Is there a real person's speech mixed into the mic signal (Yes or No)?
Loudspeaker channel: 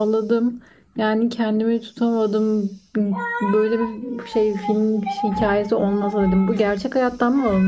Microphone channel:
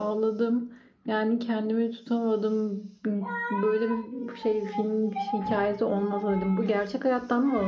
No